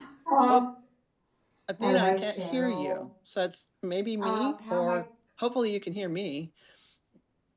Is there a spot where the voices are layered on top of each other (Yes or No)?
Yes